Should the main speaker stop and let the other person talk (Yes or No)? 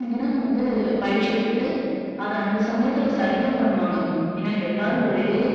No